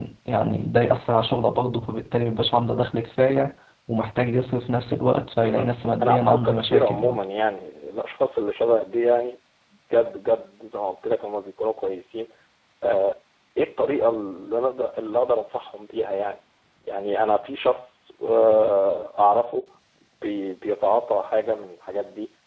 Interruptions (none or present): present